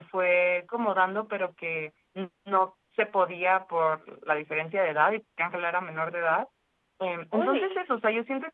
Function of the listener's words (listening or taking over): listening